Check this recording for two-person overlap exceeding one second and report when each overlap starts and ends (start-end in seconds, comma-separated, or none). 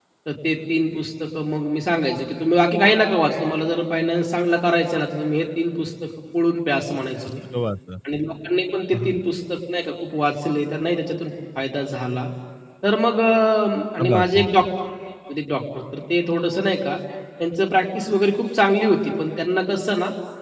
none